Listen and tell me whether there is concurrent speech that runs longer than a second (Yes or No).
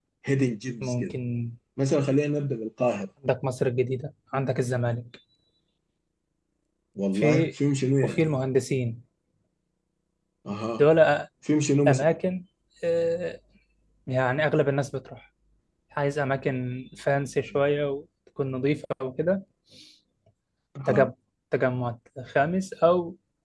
No